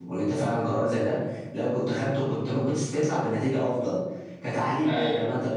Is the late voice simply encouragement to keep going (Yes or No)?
Yes